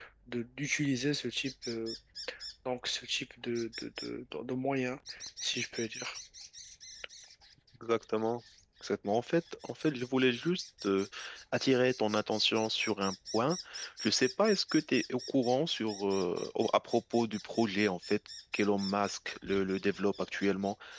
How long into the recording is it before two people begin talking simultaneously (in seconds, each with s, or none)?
none